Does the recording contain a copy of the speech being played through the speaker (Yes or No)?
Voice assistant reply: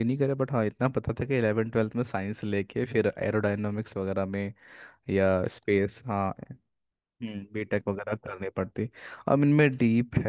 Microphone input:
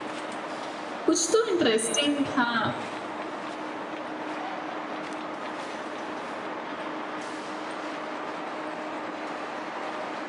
No